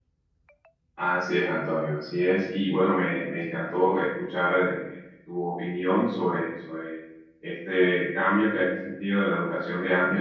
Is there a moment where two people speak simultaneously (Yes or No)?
No